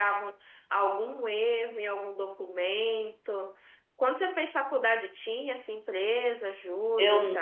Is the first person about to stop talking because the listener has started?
Yes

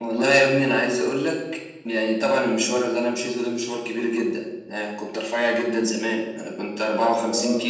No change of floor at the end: Yes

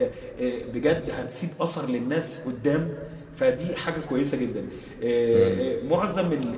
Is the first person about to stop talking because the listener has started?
No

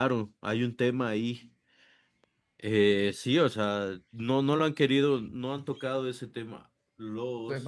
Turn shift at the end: Yes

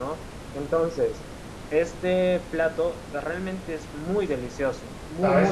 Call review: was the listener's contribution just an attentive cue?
No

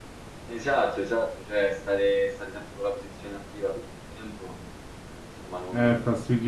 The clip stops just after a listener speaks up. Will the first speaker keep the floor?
No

